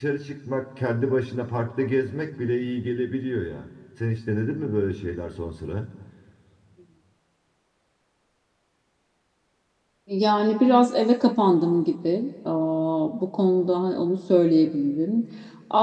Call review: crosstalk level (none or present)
none